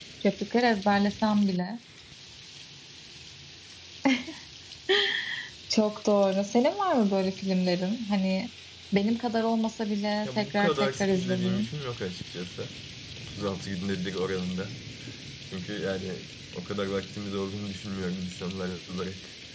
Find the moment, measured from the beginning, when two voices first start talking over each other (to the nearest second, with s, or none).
10 s